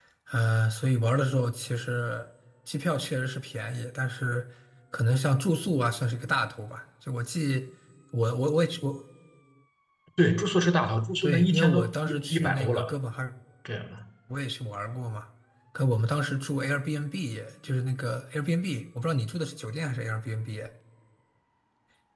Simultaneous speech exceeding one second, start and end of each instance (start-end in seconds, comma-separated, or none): 11.2-12.9